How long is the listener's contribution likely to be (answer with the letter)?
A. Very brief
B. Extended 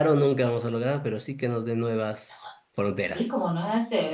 B